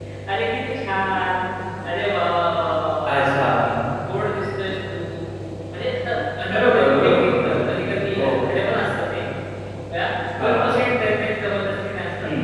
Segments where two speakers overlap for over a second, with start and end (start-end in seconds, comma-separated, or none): 6.5-7.7